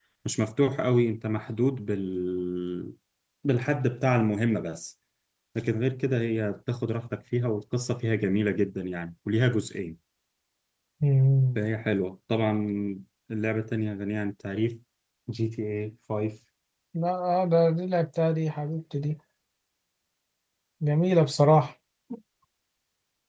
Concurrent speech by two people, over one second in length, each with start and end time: none

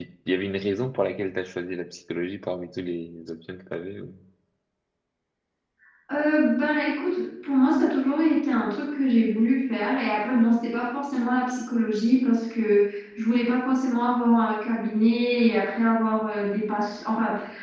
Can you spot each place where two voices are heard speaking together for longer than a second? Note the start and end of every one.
none

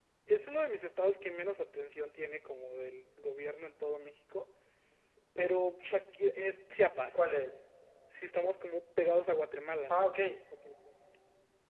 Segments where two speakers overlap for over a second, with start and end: none

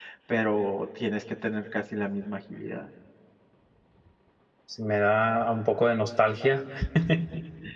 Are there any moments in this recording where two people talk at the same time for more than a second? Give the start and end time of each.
none

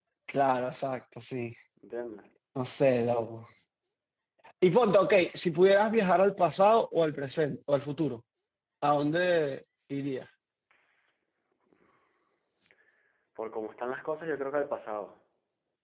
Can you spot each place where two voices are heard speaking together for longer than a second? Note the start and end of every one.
none

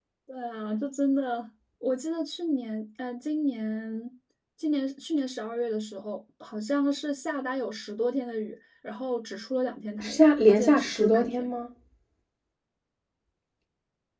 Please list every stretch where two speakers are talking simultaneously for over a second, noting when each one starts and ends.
10.0-11.5

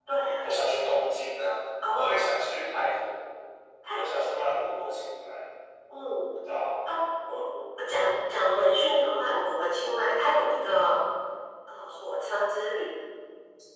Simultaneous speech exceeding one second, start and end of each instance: none

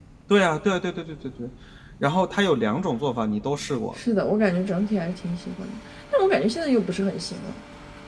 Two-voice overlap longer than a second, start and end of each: none

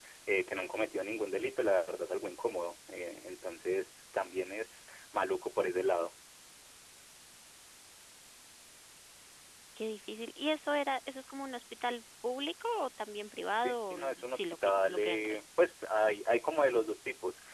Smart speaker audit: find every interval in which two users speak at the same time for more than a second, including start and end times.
13.6-15.4

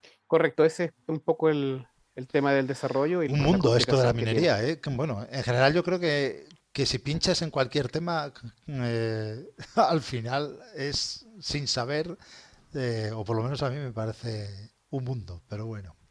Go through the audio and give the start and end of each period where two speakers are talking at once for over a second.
3.3-4.5

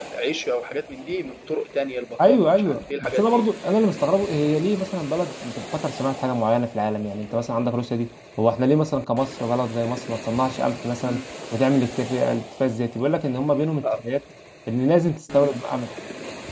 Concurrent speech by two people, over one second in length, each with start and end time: 2.2-3.5

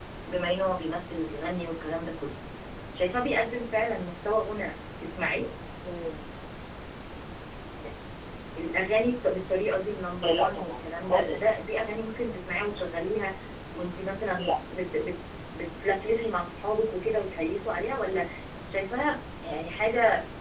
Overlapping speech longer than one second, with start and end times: 10.2-11.6

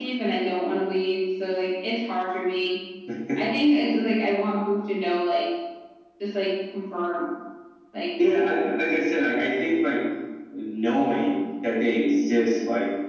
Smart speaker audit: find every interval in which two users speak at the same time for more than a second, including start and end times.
none

